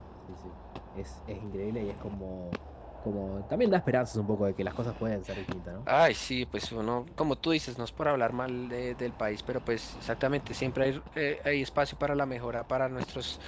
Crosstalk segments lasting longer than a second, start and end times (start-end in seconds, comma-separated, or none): none